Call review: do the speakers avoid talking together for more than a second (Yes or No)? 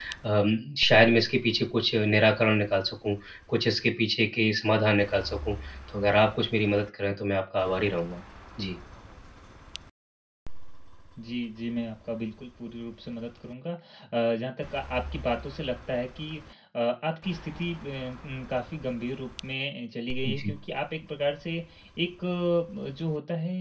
Yes